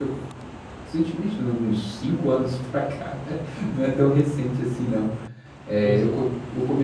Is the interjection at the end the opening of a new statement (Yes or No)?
No